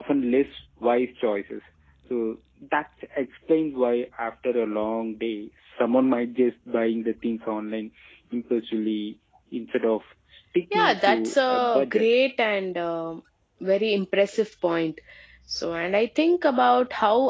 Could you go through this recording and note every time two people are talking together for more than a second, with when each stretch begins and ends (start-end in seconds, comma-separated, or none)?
10.7-12.1